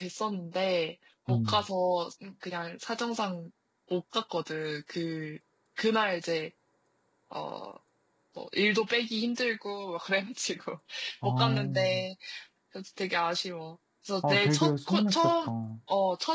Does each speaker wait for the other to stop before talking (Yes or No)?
No